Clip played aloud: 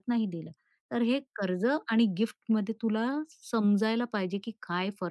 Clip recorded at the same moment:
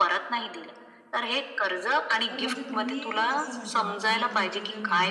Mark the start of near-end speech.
2 s

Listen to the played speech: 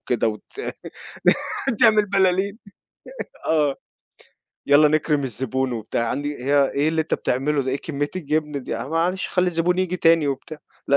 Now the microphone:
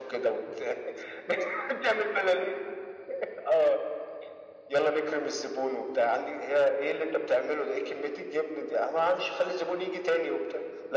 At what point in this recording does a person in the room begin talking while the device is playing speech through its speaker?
none

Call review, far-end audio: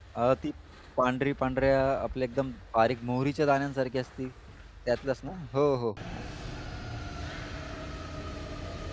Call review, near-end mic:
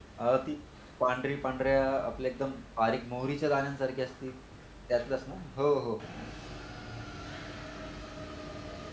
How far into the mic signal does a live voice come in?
none

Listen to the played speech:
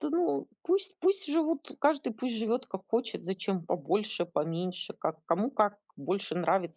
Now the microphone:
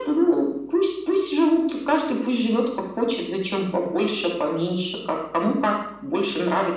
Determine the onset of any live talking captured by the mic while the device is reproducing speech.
none

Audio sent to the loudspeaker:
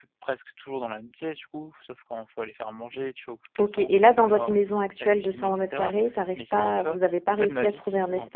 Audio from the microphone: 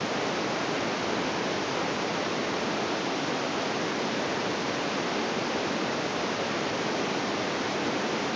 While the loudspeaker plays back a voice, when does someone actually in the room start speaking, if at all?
none

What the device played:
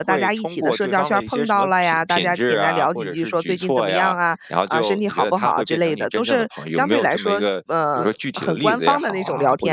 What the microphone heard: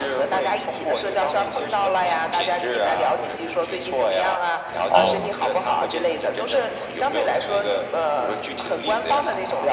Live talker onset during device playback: 5 s

